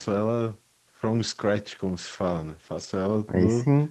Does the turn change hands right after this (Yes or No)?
No